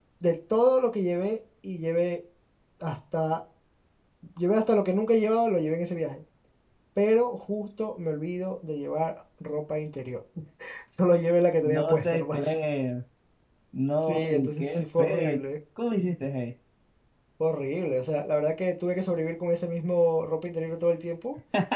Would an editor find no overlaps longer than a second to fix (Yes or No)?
No